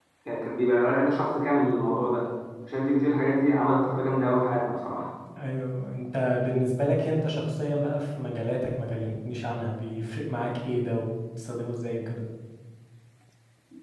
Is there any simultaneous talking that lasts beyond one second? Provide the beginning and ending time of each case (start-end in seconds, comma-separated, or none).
none